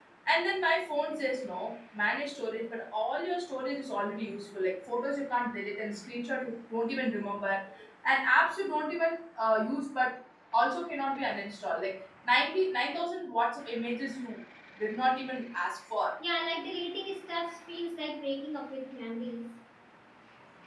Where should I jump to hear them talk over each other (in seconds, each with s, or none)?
none